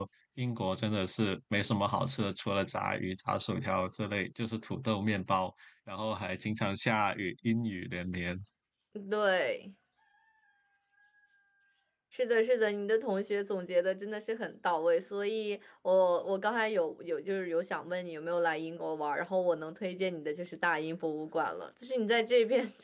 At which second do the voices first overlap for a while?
none

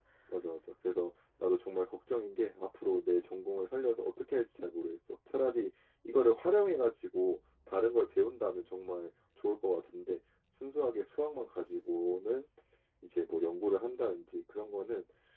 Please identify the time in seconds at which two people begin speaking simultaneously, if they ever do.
none

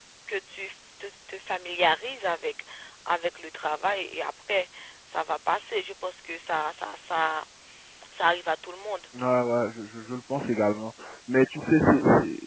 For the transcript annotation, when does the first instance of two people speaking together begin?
none

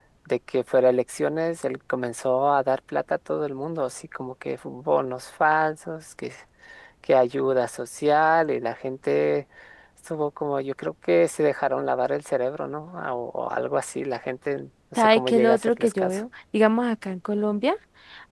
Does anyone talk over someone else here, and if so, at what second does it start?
15 s

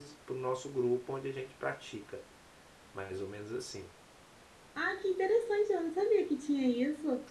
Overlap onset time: none

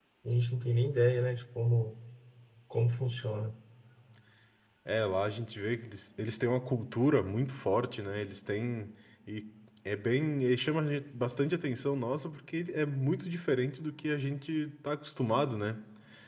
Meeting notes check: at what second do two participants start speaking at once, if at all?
none

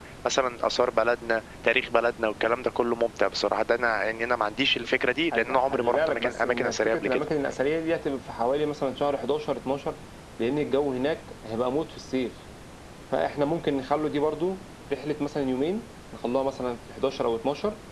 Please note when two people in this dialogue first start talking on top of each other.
5 s

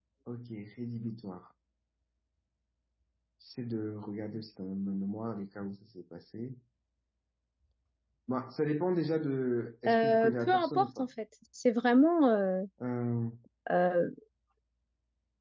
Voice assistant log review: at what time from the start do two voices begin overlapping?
10 s

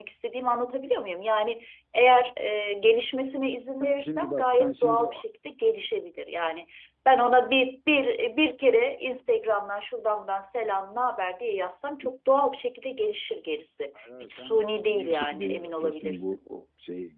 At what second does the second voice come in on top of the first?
4 s

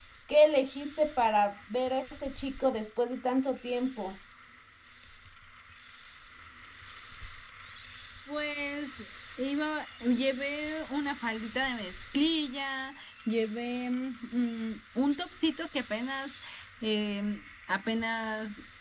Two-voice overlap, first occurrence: none

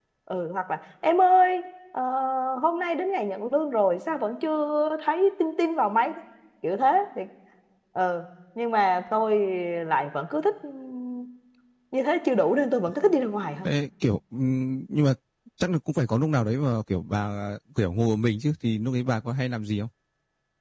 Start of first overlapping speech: none

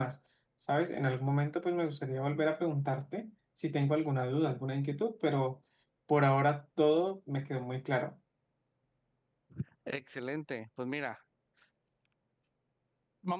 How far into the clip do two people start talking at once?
none

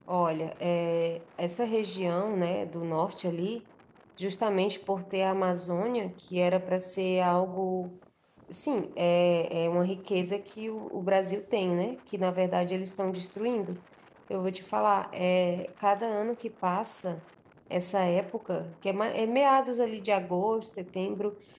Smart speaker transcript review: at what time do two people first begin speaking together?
none

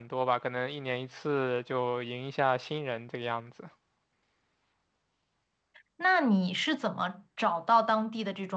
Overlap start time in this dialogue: none

